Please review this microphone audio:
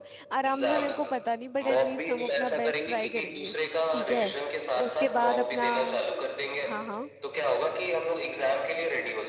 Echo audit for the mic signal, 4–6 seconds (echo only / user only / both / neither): both